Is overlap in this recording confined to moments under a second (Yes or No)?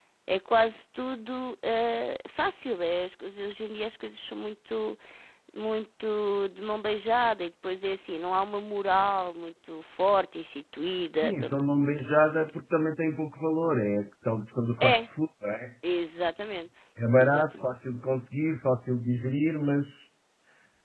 Yes